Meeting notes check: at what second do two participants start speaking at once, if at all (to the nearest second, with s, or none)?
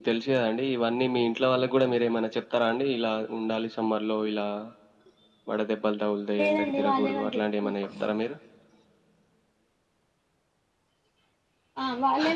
6 s